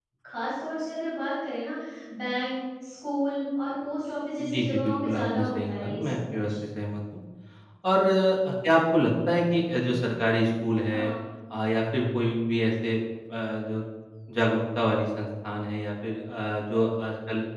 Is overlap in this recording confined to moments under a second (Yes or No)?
No